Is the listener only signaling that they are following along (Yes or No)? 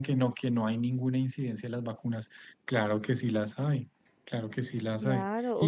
No